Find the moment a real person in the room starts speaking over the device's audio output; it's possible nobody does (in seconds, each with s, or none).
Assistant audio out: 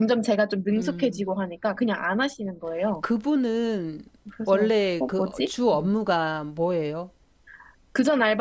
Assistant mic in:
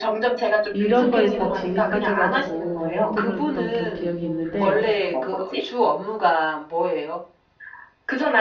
0.7 s